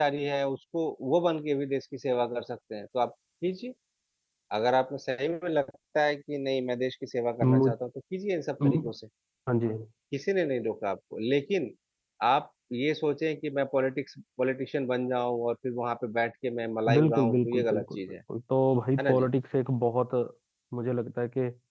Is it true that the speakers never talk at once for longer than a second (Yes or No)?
No